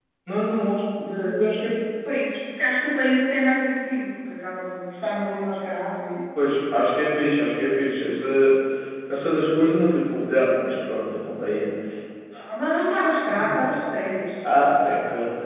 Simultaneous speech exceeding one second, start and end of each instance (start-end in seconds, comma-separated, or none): none